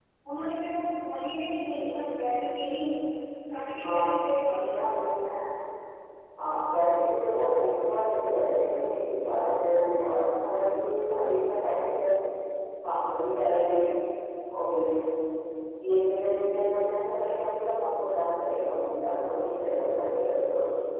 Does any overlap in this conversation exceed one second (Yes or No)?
No